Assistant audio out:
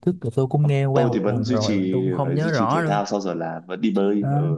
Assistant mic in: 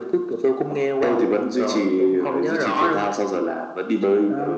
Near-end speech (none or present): none